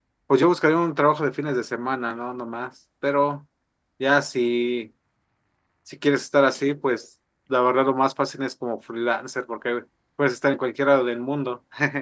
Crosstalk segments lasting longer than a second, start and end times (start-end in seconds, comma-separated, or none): none